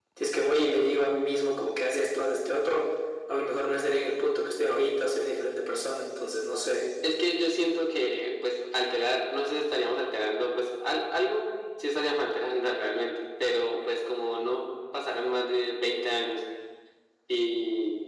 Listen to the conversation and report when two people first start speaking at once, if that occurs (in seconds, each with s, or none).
none